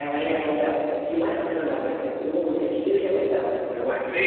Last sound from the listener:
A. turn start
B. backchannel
A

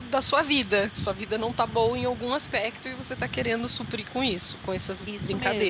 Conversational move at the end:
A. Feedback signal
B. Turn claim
B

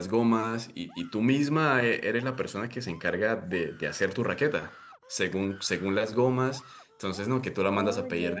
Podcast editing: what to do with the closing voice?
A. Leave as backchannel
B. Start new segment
A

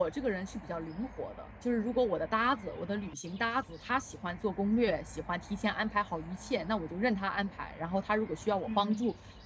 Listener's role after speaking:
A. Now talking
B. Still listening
B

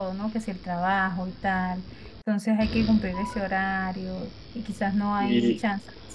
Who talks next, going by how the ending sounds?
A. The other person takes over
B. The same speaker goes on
B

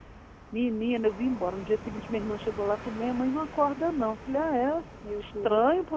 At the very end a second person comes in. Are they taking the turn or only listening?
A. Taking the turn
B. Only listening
B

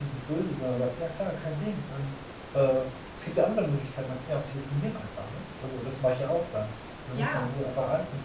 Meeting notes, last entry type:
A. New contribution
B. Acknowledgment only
B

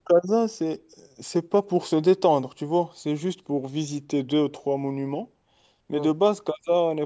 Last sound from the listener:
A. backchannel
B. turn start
A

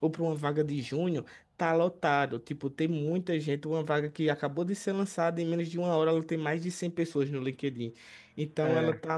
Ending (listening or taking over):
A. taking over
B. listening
B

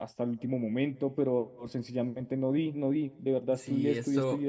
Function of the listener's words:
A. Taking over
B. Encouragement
A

